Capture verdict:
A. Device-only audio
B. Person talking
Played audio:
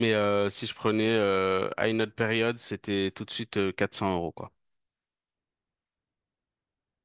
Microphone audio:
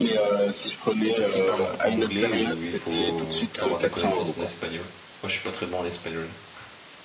B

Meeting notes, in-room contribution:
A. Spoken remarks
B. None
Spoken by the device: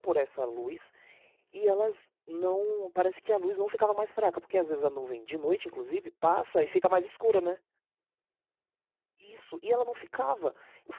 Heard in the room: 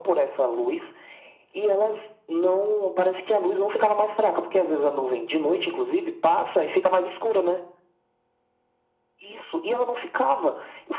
B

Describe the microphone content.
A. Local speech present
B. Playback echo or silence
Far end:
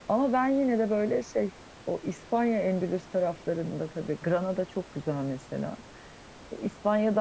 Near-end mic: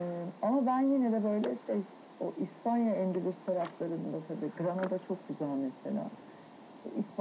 B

